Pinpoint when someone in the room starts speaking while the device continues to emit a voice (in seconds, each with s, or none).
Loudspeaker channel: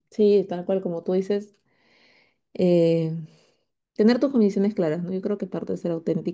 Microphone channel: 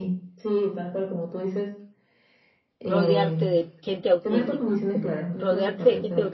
2.8 s